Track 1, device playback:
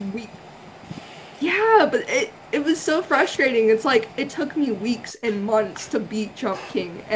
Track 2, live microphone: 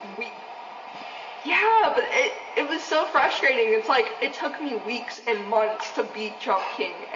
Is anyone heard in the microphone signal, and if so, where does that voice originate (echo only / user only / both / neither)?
echo only